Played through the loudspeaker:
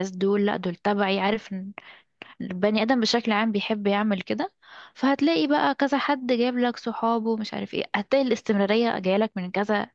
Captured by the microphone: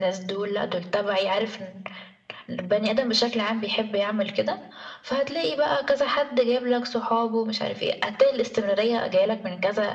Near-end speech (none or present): none